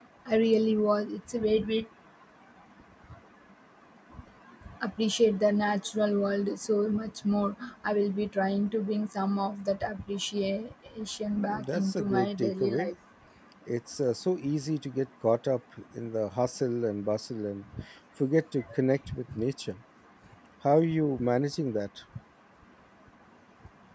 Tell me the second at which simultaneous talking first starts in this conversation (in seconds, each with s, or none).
11.4 s